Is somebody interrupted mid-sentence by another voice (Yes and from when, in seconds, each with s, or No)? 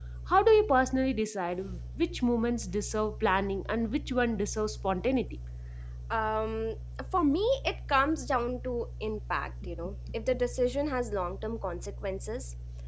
No